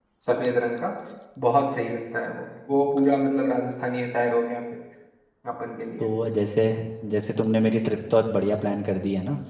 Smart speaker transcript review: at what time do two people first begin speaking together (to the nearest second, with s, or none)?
none